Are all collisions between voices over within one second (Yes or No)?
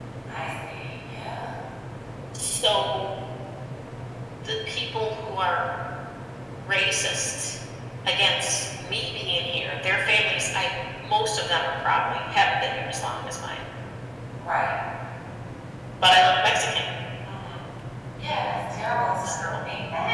Yes